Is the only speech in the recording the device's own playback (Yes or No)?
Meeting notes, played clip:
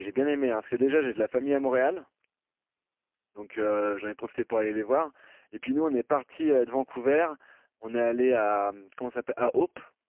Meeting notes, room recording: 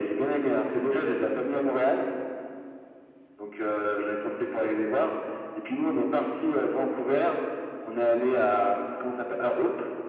Yes